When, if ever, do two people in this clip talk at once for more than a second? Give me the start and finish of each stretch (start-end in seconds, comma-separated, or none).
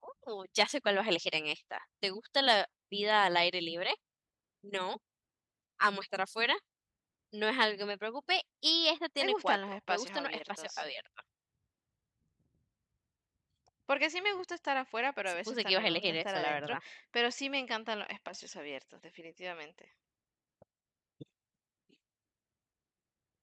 9.2-10.8, 15.5-16.8